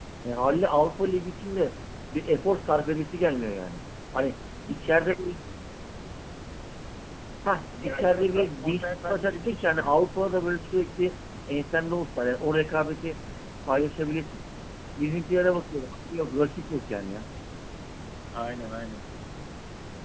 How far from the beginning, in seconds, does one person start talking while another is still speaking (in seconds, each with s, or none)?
7.8 s